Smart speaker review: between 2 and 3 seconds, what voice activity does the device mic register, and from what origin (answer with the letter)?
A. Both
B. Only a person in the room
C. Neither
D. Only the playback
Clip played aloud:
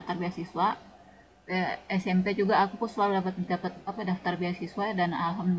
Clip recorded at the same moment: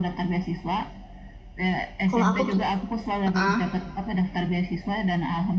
A